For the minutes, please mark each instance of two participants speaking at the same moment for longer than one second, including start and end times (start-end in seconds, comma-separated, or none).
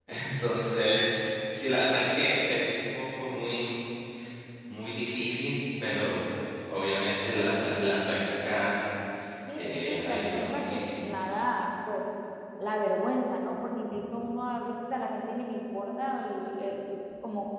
9.6-11.1